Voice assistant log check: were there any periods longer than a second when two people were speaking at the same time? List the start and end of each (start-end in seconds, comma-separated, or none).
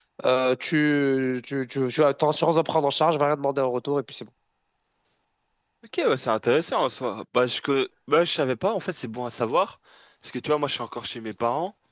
none